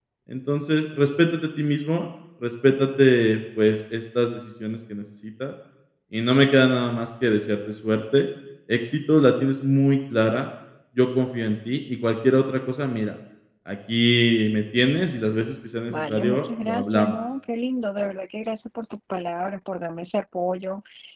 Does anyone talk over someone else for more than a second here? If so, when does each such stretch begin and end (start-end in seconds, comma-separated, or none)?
15.9-17.1